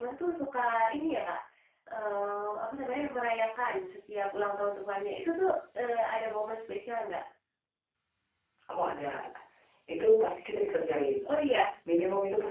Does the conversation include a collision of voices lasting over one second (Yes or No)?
No